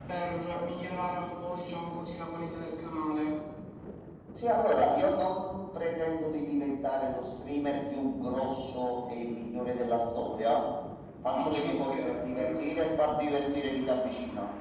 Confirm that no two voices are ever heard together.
No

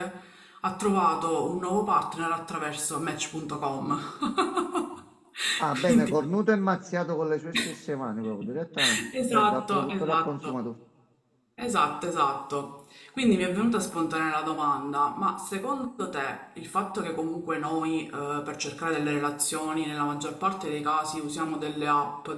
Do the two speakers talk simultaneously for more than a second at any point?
Yes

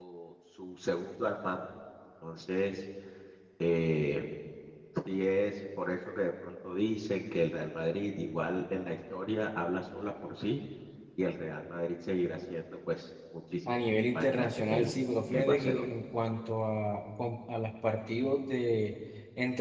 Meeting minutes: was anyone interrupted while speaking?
Yes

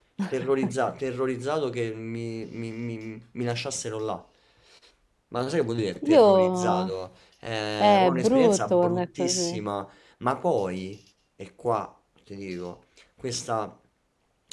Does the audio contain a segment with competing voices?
Yes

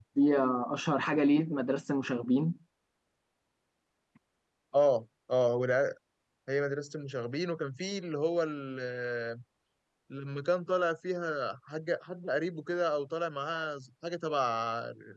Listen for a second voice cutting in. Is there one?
No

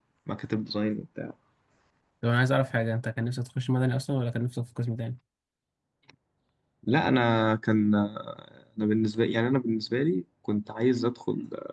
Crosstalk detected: No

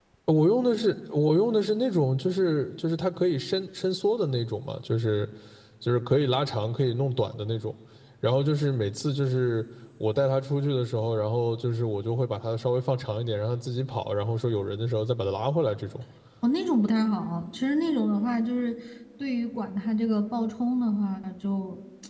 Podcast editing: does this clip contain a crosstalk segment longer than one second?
No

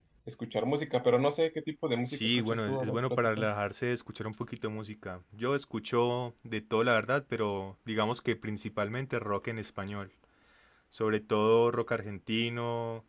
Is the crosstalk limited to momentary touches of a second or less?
No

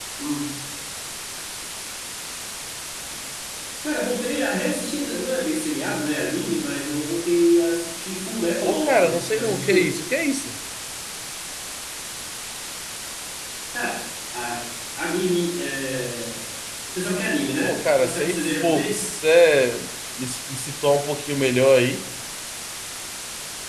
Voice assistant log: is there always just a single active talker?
No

